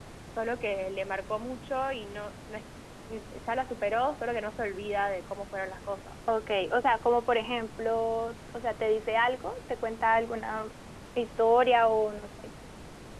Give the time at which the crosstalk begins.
none

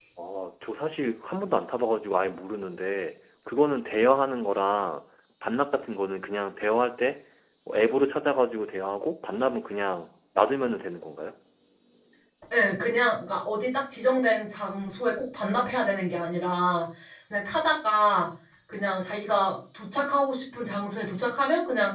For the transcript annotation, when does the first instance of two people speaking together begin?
none

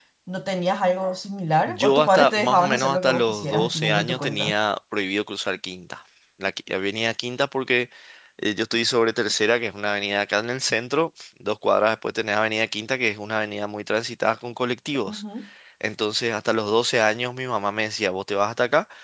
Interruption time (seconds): 1.6 s

